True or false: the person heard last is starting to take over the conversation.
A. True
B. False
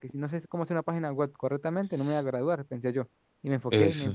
B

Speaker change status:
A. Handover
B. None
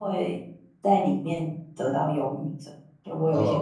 A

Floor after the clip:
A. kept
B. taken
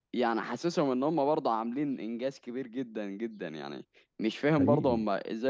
A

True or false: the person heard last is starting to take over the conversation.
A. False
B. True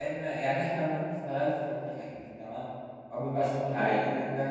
A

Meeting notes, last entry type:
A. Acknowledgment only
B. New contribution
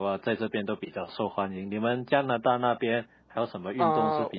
B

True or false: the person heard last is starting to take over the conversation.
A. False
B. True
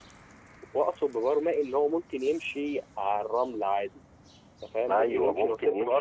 B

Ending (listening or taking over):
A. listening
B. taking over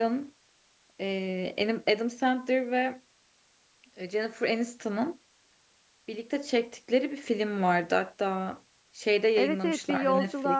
B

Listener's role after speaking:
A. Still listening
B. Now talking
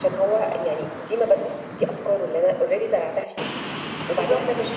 A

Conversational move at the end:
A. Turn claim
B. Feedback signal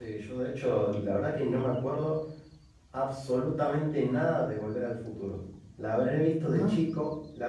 B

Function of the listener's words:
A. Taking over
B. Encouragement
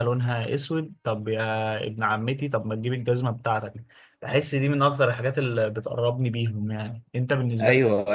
A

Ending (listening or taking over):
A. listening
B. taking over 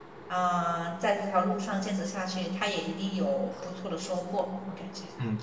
B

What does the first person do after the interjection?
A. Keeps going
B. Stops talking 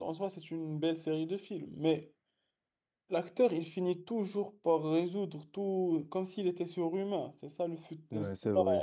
B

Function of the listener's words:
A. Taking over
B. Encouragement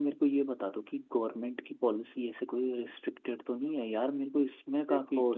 A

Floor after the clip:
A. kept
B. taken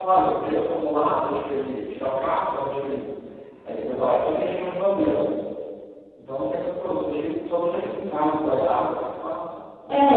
B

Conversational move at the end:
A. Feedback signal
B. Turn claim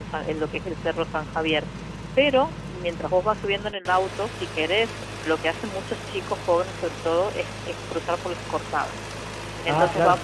A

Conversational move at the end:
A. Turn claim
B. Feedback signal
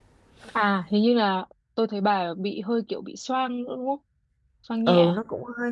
A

